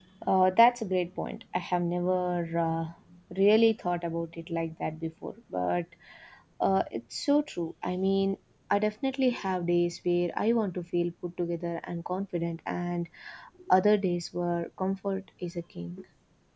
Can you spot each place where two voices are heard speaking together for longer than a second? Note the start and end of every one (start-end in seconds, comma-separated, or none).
none